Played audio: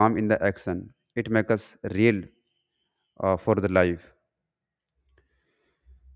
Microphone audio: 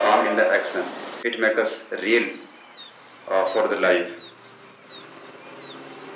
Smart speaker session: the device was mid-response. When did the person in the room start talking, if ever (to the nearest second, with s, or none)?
none